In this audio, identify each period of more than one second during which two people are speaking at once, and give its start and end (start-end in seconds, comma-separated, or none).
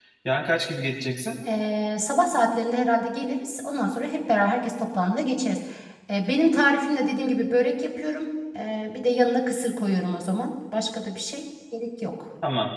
none